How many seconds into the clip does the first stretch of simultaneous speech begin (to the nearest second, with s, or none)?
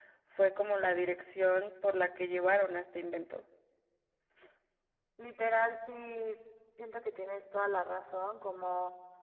none